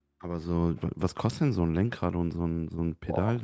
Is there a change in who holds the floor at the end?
Yes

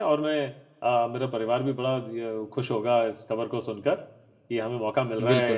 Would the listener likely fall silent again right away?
Yes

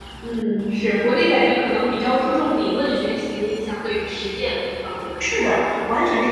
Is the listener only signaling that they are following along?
No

